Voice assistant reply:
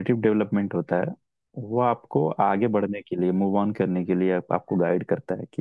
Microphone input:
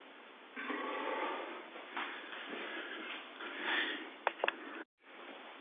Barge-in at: none

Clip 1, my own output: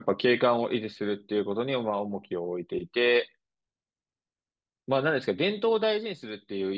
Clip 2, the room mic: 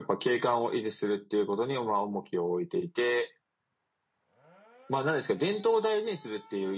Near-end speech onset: none

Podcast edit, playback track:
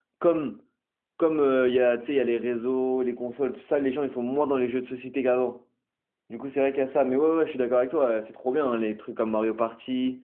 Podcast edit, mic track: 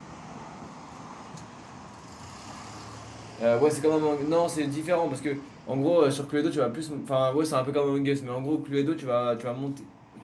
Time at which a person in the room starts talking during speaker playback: 3 s

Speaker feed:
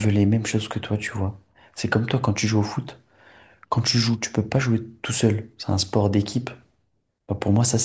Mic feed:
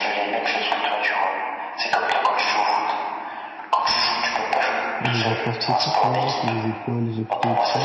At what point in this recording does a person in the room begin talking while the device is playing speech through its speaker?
5 s

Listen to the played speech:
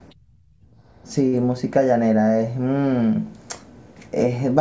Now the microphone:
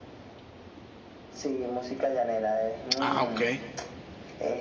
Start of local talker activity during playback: 3 s

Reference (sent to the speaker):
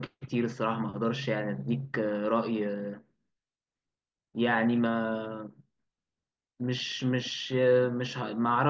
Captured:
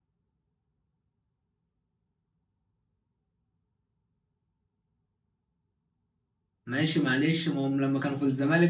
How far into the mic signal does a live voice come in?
7 s

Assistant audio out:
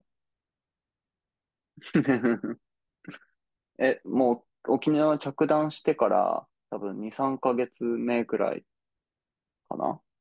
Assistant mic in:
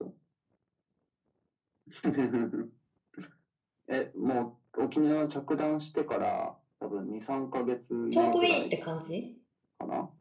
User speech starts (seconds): 8 s

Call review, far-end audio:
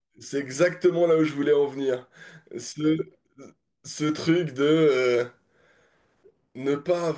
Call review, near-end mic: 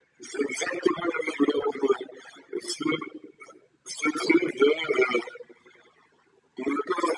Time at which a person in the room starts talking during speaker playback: none

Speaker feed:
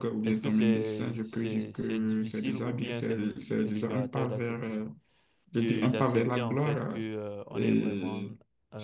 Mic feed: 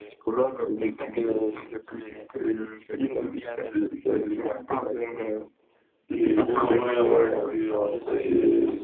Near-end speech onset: 6 s

